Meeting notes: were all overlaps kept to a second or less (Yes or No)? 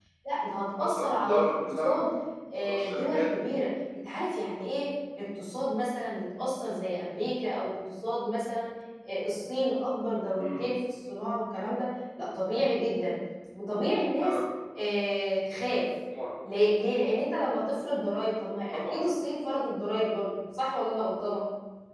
No